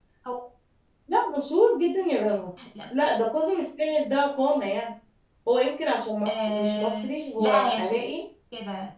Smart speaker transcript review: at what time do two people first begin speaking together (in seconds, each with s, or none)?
6.3 s